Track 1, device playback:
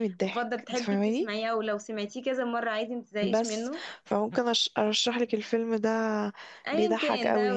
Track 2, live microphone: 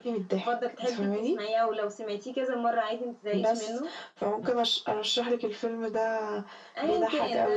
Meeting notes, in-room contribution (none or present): none